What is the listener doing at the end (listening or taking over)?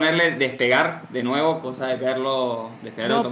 taking over